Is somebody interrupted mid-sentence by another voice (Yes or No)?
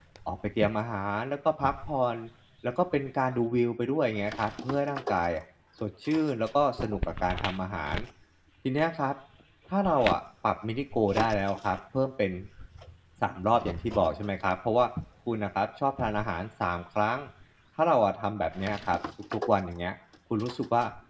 No